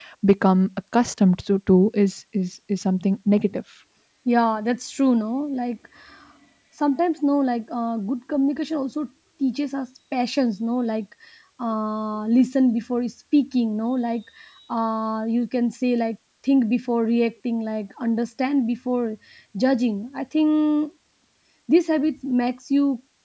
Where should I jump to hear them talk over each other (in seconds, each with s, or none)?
none